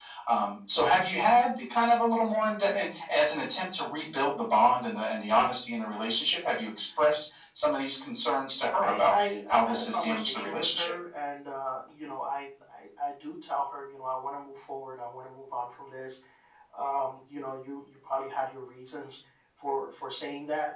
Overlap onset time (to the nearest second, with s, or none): 9 s